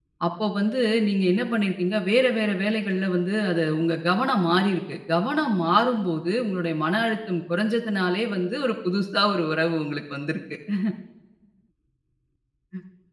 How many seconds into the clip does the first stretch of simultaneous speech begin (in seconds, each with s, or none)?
none